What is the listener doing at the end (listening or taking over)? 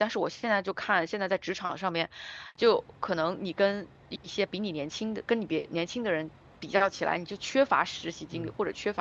listening